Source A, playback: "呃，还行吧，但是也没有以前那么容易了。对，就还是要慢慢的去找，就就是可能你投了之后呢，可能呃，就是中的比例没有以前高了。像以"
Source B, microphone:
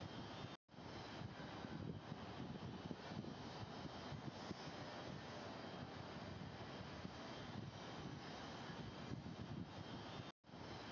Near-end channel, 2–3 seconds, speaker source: neither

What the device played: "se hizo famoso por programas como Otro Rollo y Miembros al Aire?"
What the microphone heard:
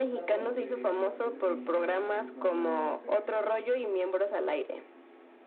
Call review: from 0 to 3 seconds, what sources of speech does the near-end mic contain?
both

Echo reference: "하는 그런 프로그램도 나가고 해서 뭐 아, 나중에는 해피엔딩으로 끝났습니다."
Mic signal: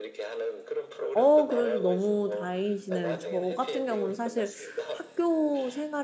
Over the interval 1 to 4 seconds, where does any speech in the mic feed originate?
both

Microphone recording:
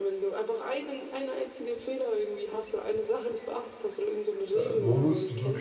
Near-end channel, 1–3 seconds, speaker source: echo only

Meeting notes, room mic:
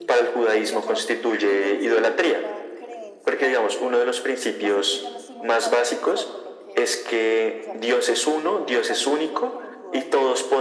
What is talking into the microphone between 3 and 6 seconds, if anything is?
both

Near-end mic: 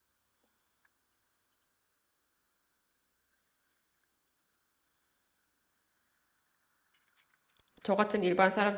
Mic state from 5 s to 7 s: neither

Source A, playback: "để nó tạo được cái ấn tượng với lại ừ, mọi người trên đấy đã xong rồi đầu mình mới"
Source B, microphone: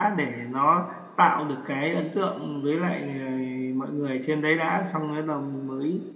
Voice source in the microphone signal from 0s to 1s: echo only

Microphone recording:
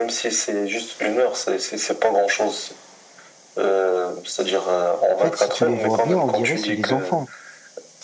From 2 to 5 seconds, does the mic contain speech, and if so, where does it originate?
echo only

